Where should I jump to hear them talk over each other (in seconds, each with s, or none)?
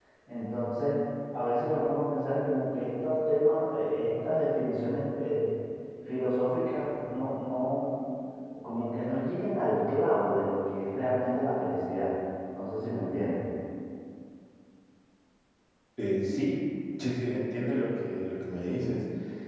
none